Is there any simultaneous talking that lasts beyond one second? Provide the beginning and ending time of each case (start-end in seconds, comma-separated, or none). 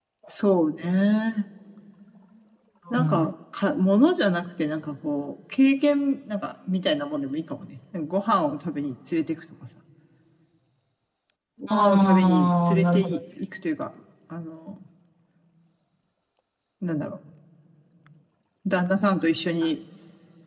11.7-13.2